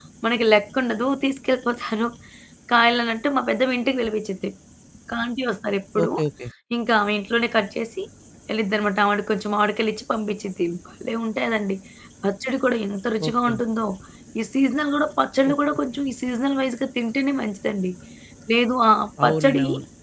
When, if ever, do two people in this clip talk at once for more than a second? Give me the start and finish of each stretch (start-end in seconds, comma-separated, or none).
none